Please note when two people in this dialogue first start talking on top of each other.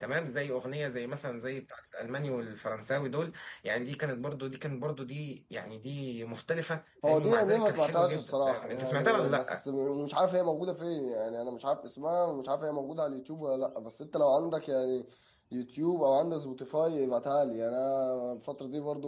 7 s

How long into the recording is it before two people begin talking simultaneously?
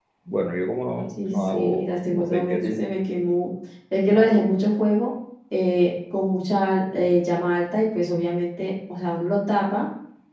1 s

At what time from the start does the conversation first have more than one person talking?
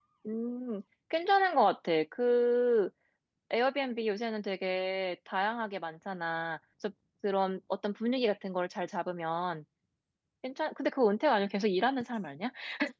none

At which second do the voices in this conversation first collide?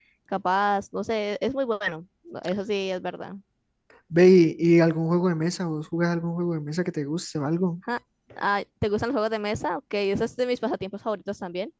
none

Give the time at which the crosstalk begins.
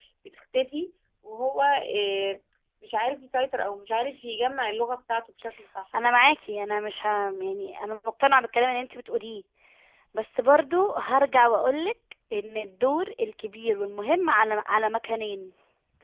none

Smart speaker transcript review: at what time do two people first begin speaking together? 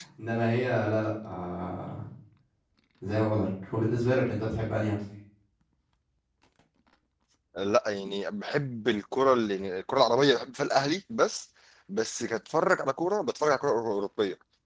none

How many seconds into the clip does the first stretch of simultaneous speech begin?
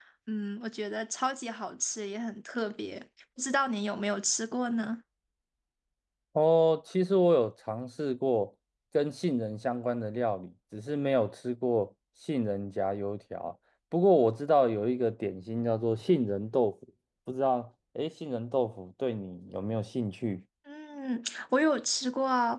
none

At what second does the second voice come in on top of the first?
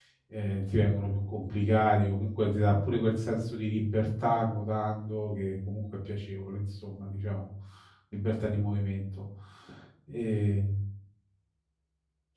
none

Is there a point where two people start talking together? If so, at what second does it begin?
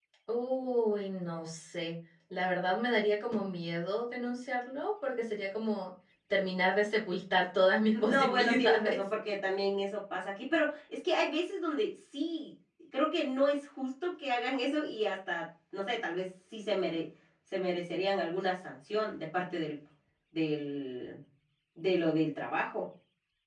8 s

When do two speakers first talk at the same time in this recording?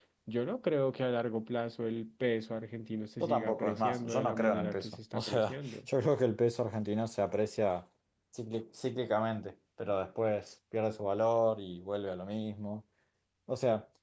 3 s

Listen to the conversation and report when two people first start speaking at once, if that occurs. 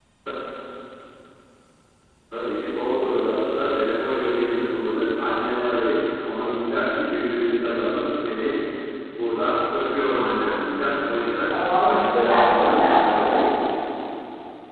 12 s

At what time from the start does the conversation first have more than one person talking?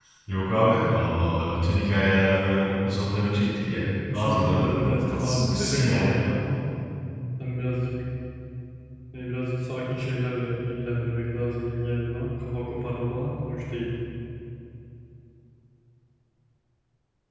4 s

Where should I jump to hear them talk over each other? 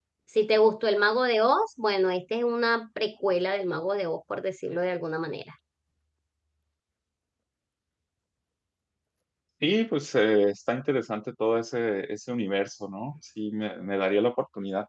none

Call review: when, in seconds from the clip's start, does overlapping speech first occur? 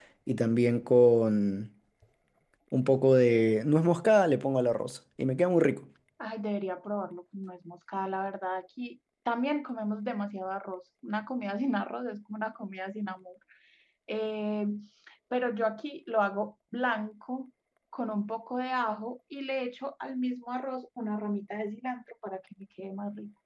none

